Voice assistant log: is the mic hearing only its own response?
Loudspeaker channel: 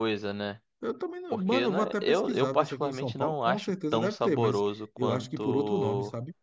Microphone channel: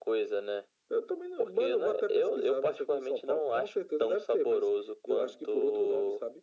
Yes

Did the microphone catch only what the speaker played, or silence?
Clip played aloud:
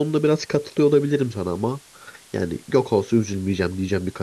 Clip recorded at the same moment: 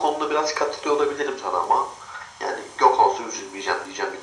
Yes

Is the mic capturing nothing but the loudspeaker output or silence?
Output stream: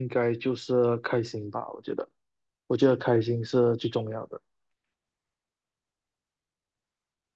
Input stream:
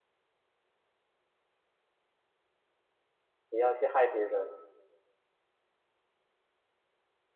No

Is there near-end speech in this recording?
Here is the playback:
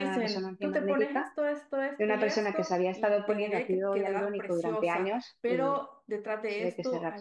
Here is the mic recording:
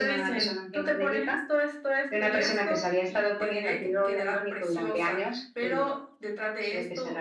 No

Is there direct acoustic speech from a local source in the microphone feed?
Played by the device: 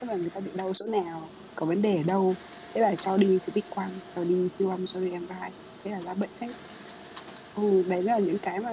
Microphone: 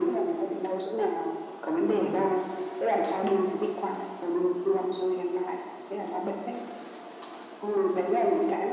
No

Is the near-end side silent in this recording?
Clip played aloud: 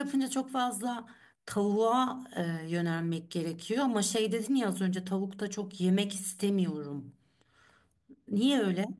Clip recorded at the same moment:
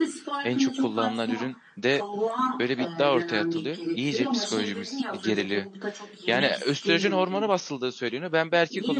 No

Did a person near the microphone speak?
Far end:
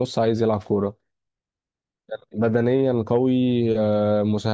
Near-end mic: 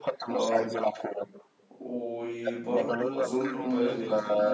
Yes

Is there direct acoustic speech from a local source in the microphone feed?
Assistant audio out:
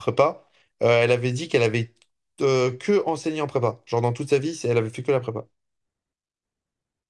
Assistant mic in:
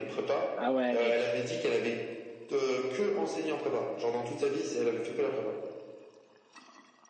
Yes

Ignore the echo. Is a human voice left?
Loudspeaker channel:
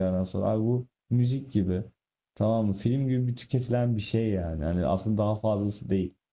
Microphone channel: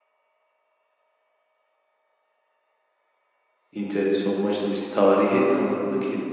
Yes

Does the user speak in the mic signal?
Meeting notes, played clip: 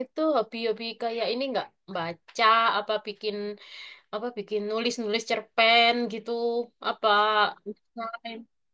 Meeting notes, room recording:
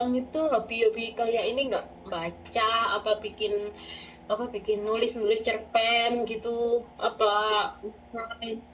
No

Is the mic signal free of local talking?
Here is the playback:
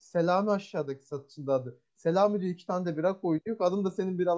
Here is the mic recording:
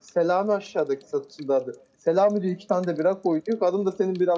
Yes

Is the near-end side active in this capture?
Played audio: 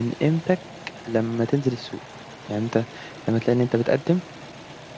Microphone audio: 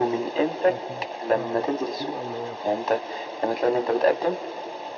Yes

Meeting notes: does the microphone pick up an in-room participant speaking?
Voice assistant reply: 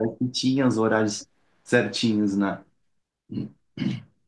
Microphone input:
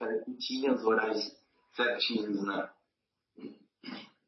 No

